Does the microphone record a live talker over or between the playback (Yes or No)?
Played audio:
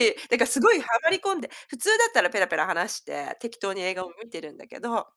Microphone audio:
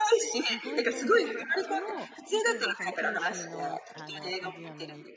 Yes